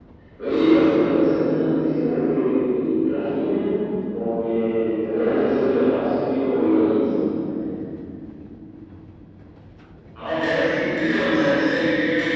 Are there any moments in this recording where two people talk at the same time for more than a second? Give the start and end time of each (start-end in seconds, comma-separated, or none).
none